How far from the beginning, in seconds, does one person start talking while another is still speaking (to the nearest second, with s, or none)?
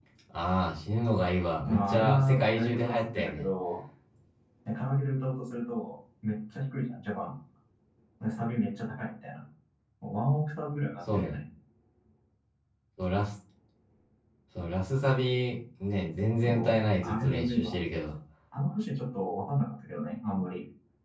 2 s